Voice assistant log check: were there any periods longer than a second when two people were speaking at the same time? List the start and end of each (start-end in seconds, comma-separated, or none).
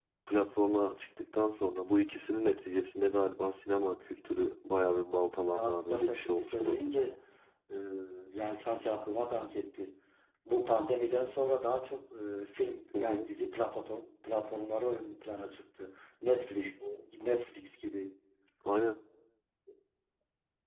5.5-7.0